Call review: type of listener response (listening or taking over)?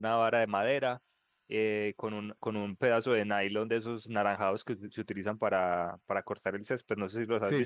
taking over